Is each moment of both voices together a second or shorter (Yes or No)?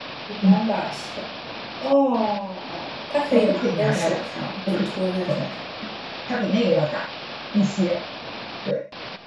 No